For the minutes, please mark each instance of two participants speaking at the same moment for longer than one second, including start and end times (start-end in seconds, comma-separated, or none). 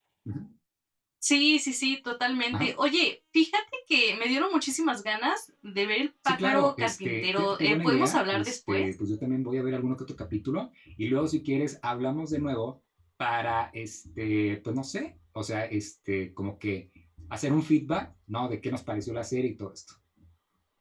6.2-8.9